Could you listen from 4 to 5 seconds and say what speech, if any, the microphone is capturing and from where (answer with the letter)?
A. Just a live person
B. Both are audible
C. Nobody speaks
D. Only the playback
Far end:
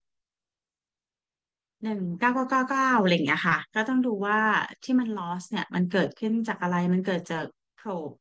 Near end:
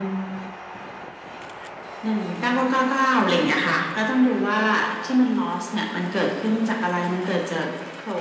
D